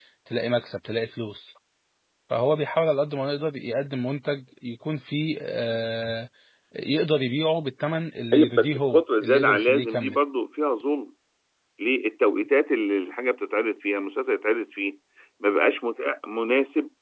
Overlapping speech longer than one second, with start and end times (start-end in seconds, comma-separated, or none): 8.3-10.2